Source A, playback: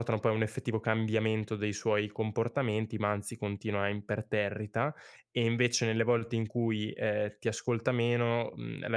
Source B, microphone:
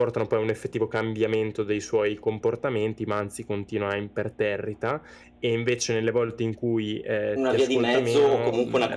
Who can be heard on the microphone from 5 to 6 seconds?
echo only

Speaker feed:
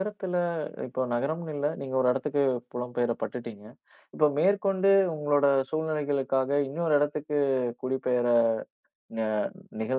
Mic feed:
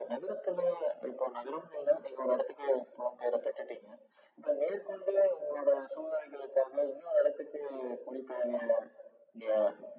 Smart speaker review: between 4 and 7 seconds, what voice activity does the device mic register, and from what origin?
echo only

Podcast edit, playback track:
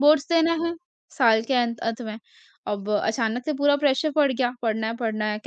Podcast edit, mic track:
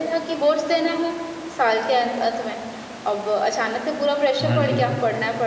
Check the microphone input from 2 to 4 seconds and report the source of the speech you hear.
echo only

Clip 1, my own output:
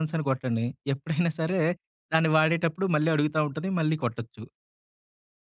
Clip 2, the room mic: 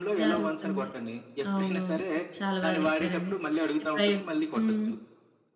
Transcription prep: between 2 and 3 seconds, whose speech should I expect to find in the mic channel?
both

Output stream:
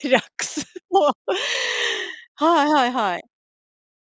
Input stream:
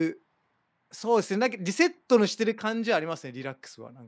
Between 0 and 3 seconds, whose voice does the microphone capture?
user only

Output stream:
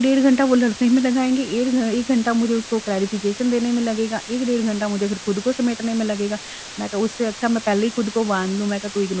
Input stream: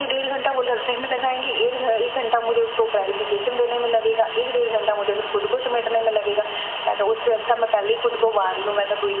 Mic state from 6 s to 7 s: echo only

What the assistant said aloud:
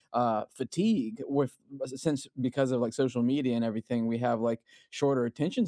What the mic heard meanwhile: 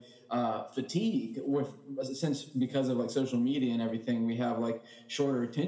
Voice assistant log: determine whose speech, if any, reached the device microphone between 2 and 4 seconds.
echo only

